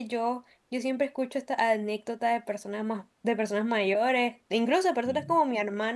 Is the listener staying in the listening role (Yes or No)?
Yes